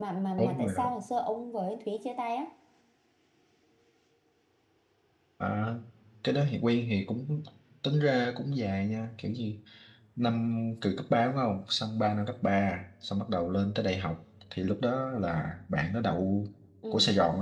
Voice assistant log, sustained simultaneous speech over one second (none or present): none